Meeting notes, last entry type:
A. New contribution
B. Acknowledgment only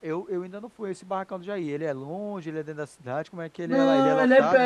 A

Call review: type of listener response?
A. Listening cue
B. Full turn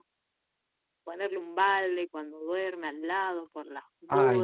B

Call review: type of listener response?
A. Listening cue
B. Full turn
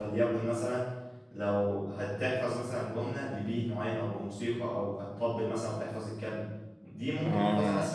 A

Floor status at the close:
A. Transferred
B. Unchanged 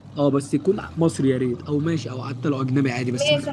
A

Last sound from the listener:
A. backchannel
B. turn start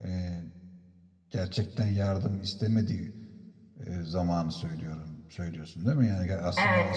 B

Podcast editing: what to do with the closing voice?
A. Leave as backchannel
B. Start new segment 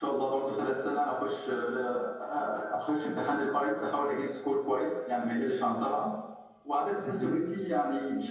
A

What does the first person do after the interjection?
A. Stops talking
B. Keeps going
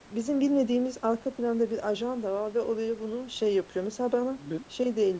B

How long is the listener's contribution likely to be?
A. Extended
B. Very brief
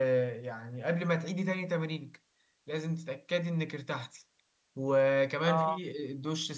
B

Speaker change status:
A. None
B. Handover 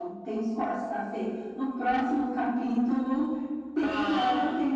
A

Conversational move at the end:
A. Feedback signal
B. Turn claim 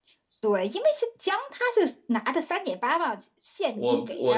B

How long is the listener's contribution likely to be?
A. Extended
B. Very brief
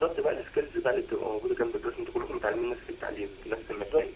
B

